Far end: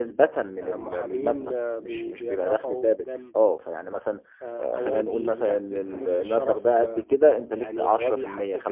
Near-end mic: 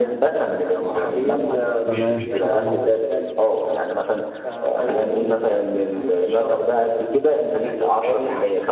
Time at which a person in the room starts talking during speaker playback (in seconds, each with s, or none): 1.8 s